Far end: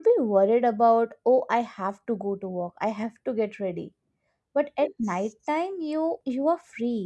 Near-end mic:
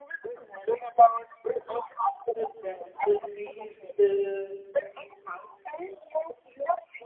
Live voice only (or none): so that the trees the